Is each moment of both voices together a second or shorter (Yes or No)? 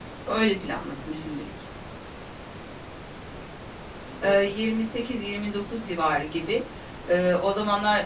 Yes